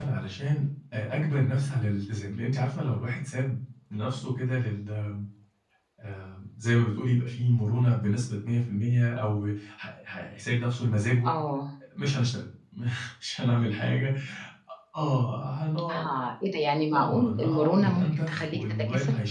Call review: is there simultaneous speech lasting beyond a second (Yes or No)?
Yes